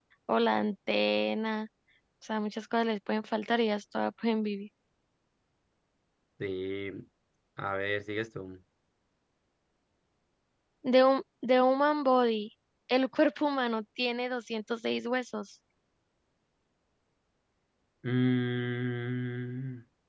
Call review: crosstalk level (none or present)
none